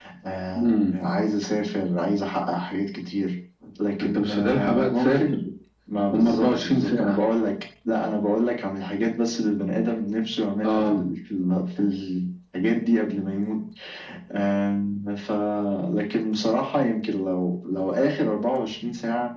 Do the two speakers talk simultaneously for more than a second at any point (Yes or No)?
Yes